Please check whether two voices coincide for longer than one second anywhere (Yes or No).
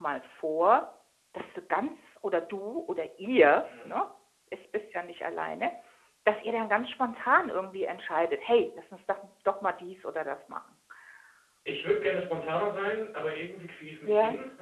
No